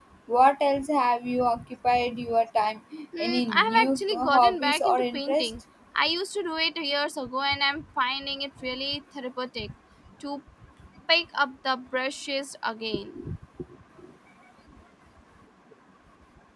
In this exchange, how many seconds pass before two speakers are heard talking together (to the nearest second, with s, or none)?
3 s